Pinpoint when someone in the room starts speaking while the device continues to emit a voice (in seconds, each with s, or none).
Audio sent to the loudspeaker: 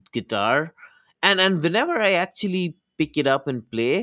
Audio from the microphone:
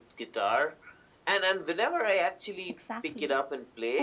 2.7 s